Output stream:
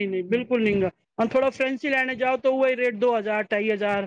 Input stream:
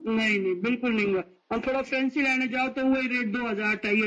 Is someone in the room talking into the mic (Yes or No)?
No